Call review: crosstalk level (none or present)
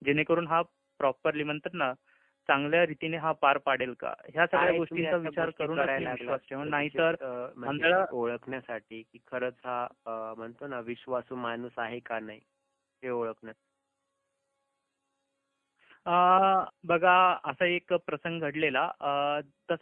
present